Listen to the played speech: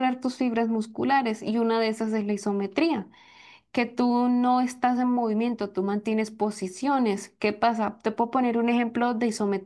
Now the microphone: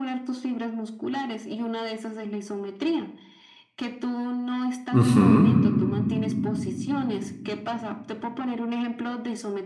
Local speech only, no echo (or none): Ujú.